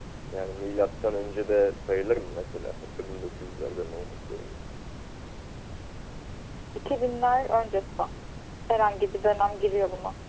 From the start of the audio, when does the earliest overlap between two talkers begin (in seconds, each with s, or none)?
none